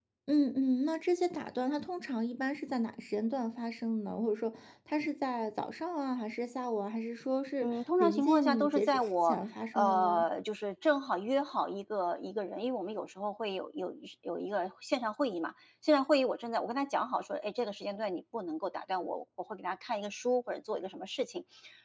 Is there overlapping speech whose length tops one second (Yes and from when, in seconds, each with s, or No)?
Yes, from 7.6 s